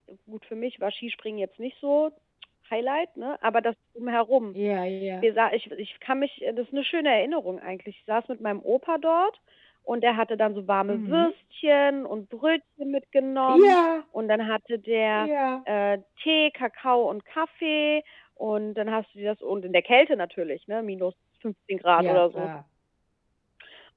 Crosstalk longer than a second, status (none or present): none